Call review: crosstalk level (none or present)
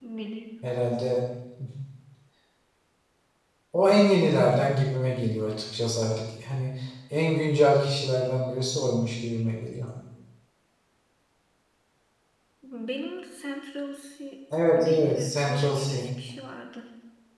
present